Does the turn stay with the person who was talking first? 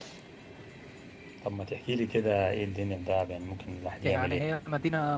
No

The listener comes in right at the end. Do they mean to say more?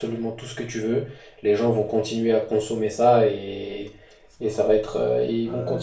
Yes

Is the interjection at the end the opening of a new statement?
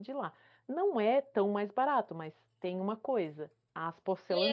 Yes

